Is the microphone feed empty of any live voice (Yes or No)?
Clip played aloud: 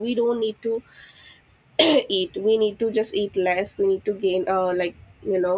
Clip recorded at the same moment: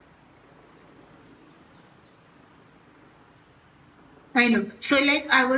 No